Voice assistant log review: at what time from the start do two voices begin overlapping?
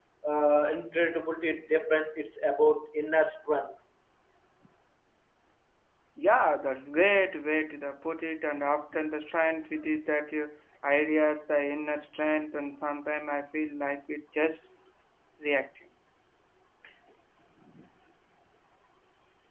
none

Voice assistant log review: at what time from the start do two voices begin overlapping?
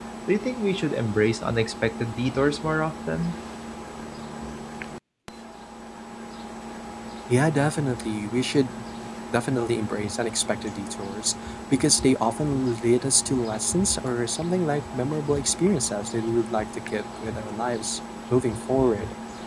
none

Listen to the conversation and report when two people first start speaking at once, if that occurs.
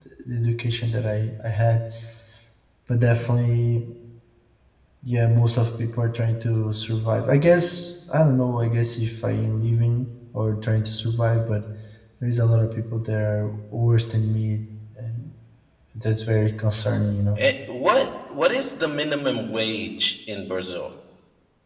none

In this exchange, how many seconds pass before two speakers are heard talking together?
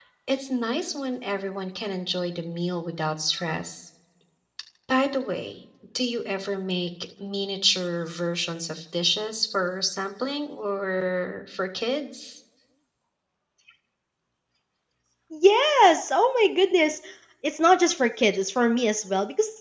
none

